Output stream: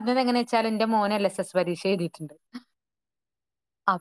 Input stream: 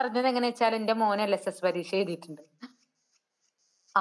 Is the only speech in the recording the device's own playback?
Yes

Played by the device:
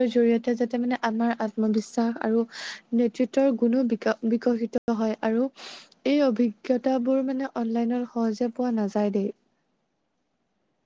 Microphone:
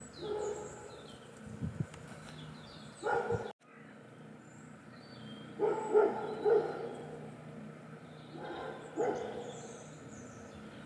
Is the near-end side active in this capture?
No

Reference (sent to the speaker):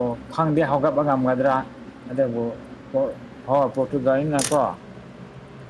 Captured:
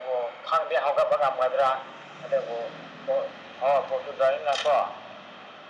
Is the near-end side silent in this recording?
Yes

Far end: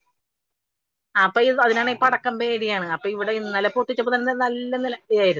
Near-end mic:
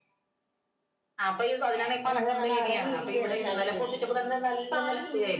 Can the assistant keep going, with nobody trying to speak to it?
No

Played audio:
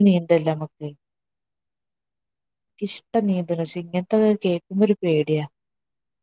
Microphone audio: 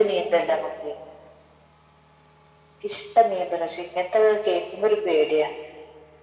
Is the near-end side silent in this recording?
Yes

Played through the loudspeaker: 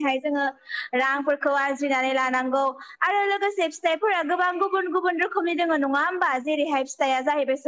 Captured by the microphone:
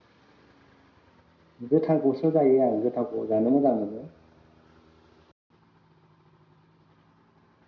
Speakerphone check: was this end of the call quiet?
No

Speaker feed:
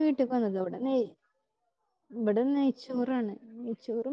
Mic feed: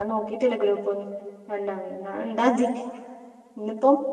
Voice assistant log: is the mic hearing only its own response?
No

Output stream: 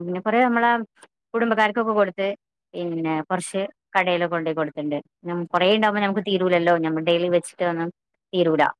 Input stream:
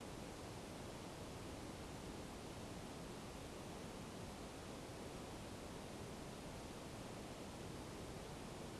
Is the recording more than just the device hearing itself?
No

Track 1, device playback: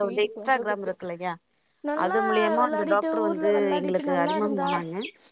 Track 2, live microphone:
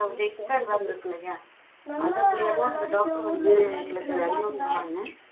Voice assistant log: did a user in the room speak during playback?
No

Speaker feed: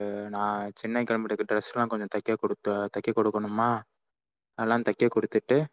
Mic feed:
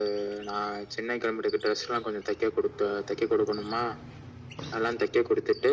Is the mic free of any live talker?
Yes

